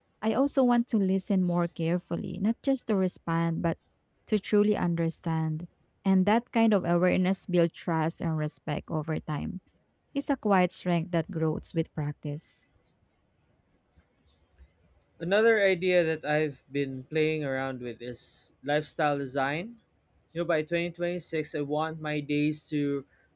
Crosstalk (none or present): none